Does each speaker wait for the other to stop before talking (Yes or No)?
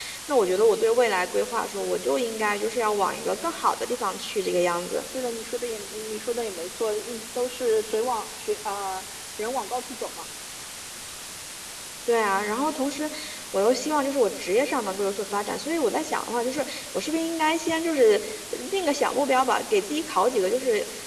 Yes